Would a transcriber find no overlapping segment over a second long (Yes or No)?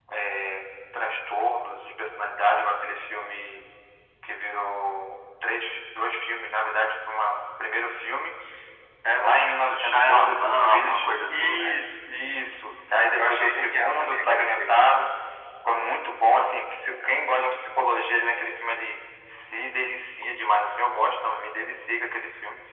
No